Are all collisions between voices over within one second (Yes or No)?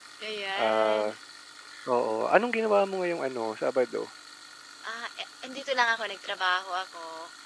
Yes